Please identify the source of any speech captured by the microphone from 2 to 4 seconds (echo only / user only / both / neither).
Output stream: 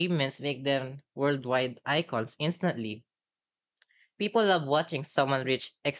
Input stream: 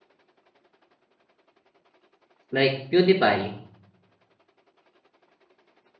user only